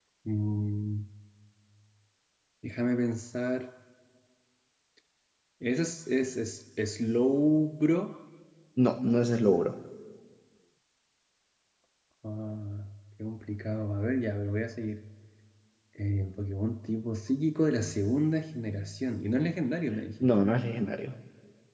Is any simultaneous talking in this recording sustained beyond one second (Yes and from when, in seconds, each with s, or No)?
No